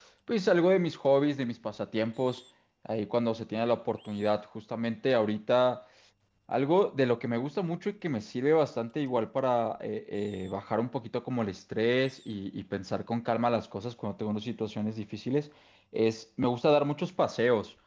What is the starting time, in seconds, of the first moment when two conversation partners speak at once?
none

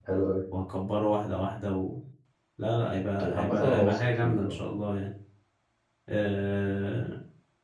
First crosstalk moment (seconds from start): 3.3 s

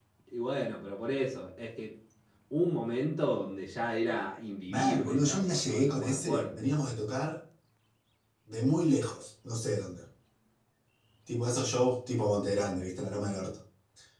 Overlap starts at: 4.7 s

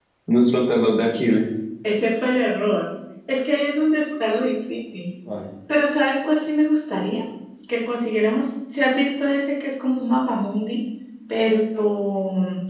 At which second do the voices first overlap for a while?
none

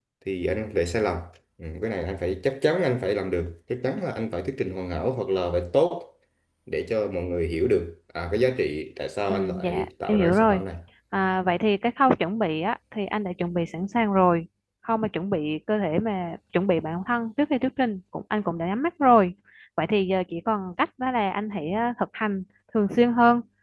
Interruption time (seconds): 9.3 s

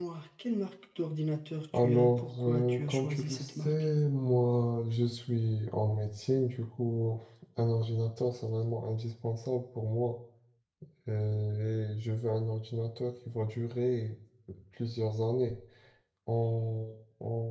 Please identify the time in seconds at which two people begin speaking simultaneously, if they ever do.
1.7 s

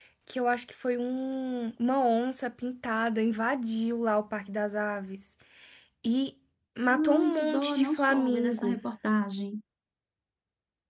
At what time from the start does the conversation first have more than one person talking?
7.2 s

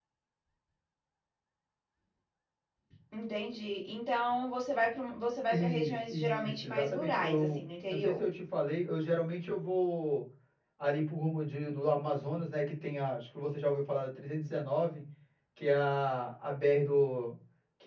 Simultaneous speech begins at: 5.5 s

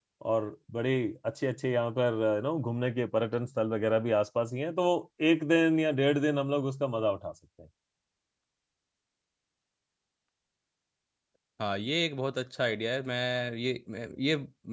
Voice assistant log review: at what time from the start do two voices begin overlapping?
none

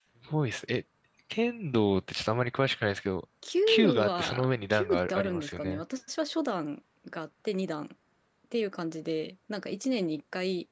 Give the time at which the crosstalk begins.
3.7 s

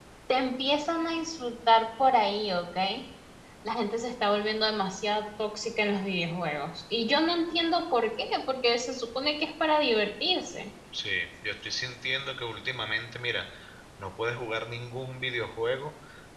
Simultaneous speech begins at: none

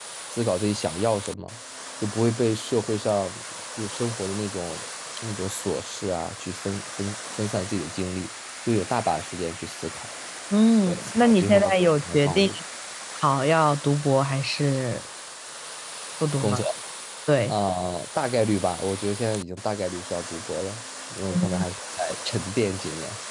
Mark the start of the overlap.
10.9 s

